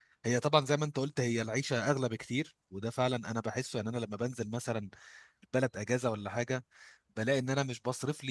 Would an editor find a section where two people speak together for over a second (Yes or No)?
No